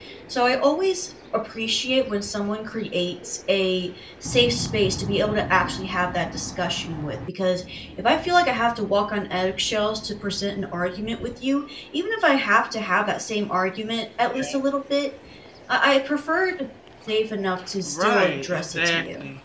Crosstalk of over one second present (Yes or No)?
Yes